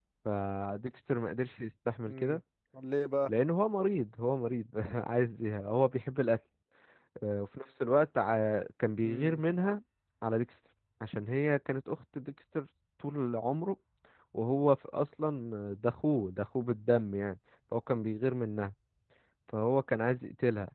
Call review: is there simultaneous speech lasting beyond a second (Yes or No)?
No